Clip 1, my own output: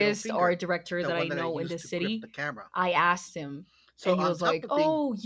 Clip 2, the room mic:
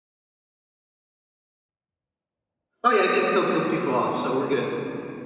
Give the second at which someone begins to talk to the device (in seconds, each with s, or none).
2.8 s